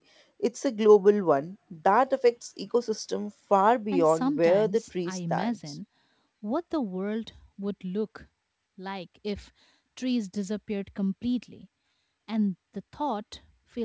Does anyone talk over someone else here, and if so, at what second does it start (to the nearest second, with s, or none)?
4 s